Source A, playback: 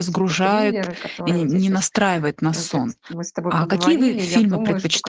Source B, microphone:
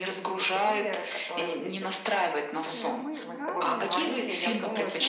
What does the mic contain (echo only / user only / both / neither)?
both